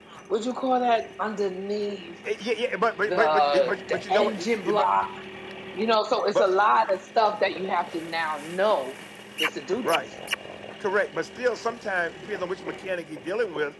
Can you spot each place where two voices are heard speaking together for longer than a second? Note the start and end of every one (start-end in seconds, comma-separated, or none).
3.1-4.9